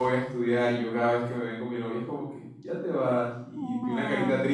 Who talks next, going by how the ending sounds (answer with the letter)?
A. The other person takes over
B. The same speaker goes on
B